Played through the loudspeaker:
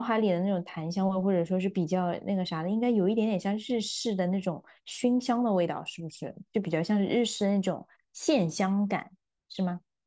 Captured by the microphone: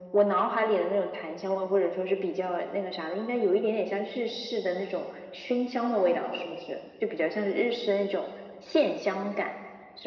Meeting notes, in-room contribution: none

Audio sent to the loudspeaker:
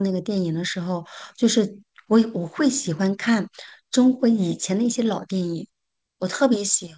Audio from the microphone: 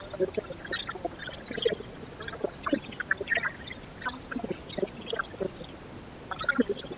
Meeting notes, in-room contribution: none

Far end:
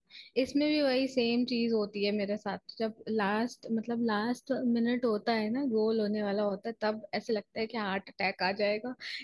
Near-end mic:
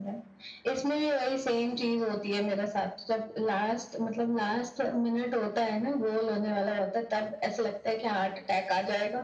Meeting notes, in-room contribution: none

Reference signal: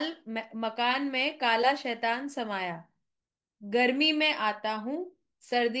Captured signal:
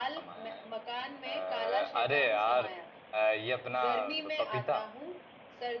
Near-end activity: present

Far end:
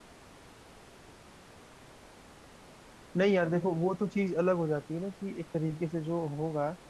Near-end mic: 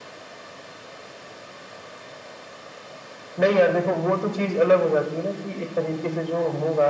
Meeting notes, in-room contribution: none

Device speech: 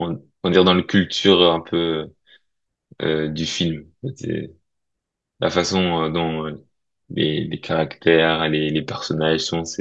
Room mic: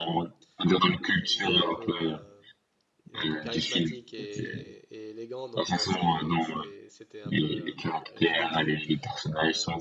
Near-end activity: present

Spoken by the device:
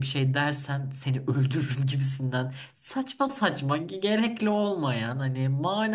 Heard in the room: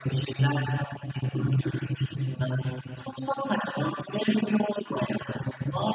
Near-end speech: none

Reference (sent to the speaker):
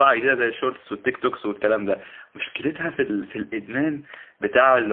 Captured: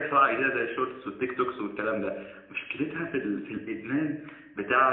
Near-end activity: none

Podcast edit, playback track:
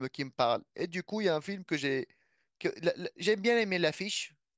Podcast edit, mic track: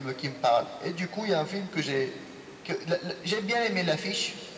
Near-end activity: none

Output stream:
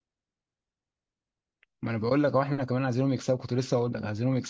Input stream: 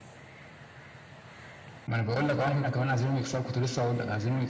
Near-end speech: none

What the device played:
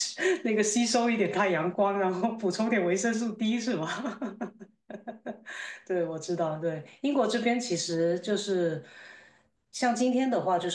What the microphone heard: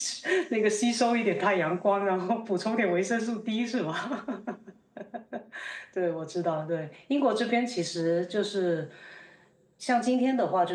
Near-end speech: none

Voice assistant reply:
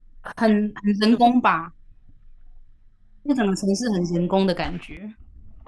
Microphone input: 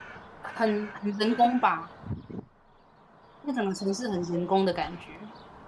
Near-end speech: none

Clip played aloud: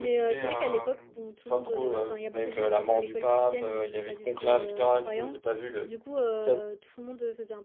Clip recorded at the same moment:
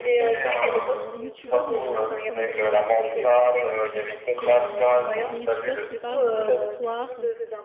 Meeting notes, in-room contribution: present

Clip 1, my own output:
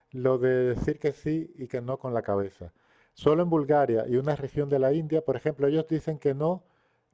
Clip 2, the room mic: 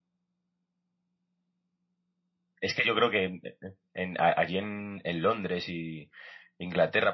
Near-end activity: present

